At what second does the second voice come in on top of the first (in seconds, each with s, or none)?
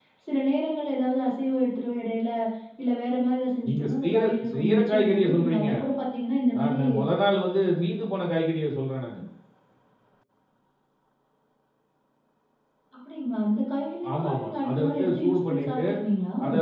3.6 s